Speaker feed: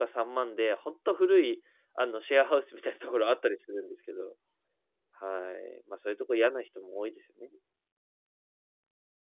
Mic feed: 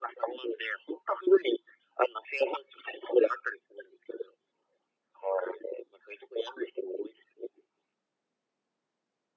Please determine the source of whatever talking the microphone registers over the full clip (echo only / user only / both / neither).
echo only